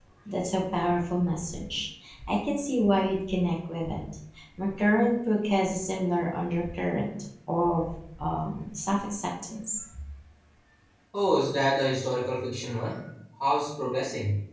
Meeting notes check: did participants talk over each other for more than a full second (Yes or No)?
No